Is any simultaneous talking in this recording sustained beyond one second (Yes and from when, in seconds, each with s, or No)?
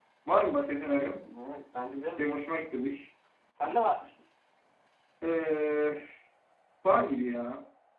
No